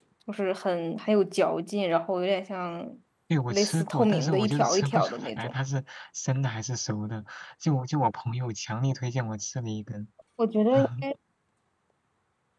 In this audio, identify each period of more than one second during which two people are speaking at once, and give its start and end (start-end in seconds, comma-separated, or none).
3.5-5.5